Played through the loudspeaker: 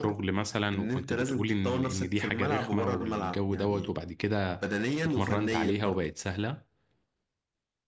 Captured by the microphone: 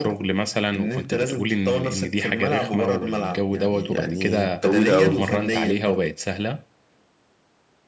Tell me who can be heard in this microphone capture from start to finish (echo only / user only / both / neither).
both